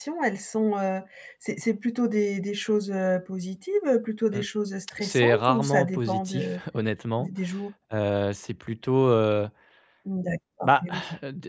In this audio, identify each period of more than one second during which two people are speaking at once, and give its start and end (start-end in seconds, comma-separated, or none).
5.0-6.6